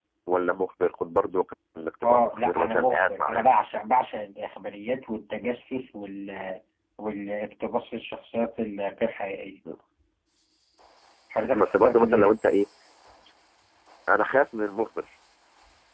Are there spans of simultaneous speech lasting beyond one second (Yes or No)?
Yes